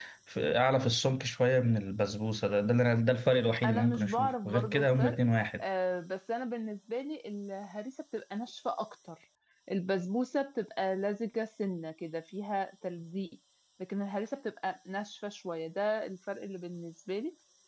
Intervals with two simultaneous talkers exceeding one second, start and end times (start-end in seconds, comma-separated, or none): 3.6-5.2